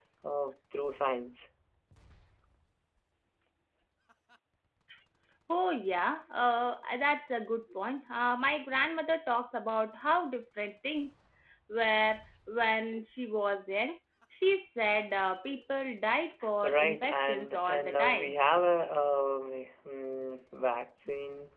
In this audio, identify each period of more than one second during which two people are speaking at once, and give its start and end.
16.6-18.3

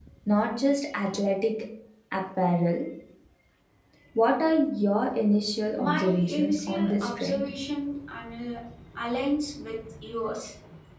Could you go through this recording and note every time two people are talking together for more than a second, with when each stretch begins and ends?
5.9-7.5

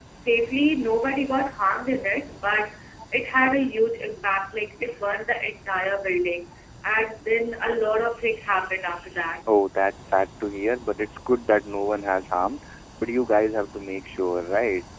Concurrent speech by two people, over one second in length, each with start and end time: none

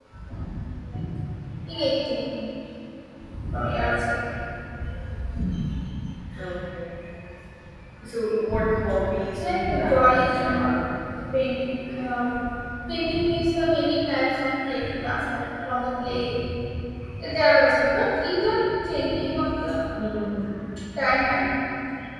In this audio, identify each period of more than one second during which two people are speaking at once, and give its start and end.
9.4-10.8

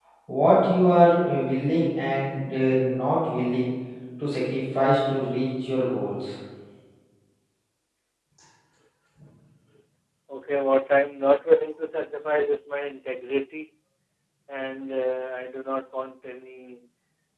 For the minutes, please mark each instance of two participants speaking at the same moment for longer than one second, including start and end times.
none

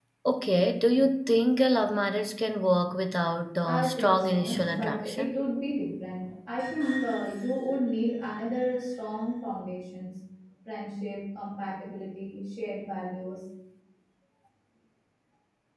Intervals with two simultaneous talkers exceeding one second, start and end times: 3.7-5.4

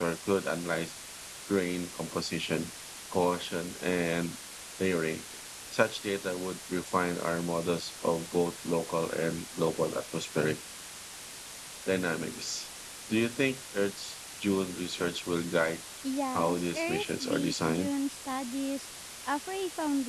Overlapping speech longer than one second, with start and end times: 16.3-17.9

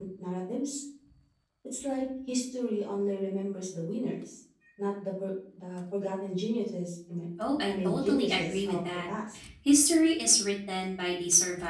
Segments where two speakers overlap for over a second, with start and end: 7.7-9.0

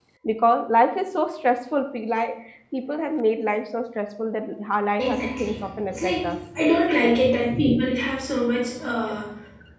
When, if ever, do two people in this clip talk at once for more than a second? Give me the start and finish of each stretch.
5.0-6.4

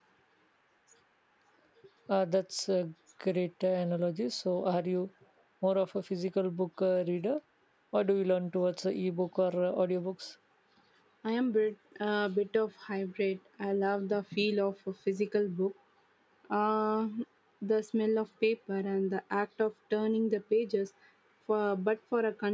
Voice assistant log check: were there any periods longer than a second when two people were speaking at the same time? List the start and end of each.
none

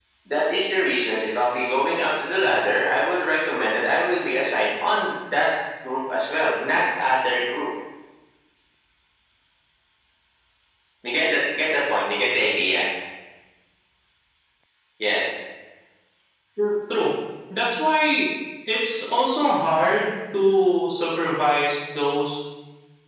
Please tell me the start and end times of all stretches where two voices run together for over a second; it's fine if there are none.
none

